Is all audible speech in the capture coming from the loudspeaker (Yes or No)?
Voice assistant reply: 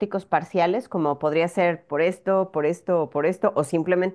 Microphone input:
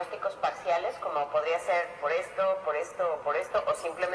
Yes